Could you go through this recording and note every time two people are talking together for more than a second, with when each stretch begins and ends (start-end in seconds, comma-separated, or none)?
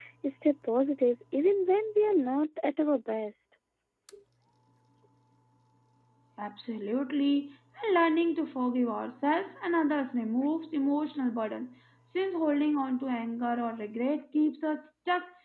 none